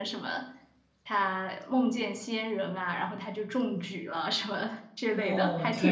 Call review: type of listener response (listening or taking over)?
taking over